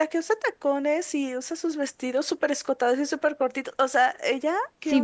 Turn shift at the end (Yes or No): Yes